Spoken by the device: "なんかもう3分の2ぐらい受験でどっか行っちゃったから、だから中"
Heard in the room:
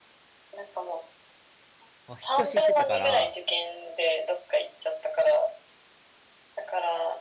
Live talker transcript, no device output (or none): まあ引っ越ししてたから、